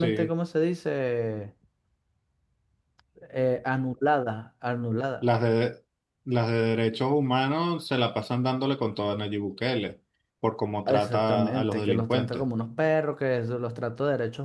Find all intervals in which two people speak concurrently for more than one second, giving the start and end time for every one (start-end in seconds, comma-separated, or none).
10.9-12.4